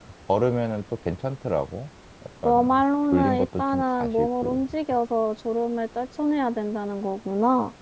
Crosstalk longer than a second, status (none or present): present